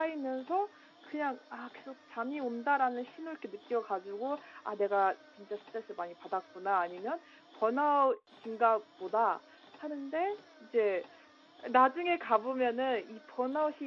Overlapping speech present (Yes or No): No